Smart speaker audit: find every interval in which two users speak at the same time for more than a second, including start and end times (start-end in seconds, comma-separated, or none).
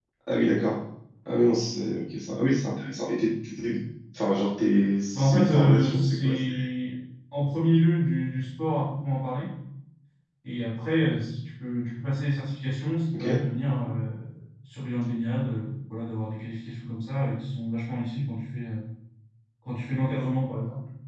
5.1-6.5